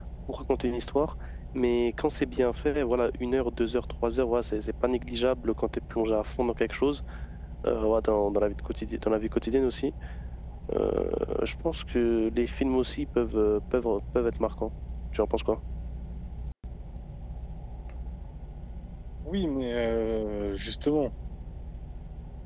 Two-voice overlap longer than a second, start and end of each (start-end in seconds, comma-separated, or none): none